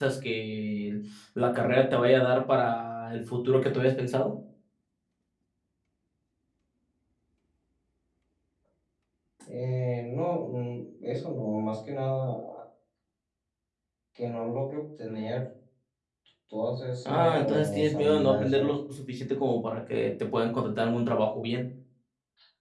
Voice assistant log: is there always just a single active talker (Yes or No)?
No